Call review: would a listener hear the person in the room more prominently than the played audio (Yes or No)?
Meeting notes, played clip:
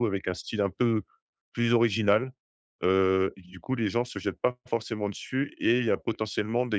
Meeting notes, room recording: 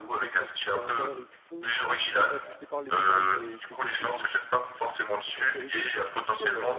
No